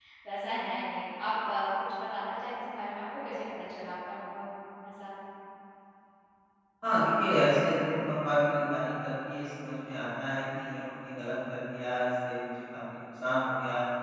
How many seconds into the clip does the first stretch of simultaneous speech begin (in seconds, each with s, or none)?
none